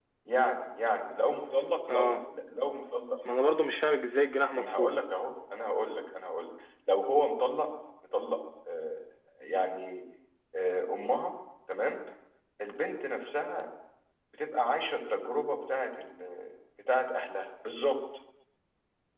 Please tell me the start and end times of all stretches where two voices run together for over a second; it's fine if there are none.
none

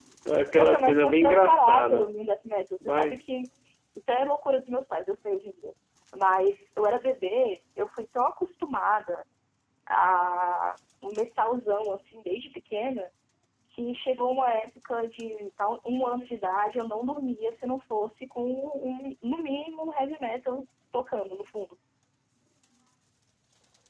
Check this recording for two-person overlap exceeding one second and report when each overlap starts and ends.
0.6-2.1

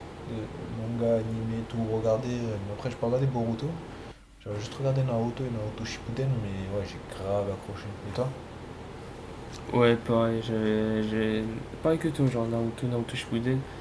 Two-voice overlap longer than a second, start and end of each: none

